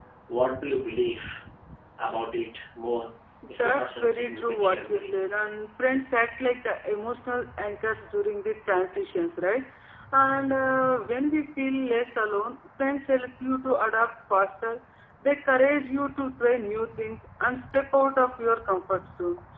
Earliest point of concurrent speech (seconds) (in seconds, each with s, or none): 3.6 s